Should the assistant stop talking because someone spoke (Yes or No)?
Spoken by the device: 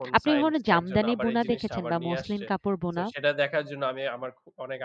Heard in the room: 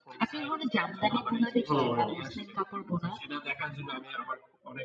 Yes